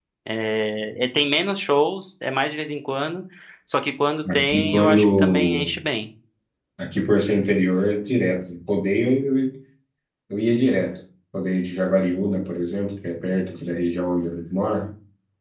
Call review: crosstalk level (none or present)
present